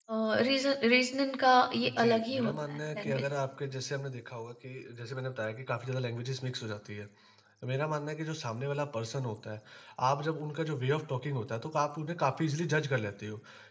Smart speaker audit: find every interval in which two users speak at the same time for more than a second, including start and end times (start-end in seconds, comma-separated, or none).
1.8-3.2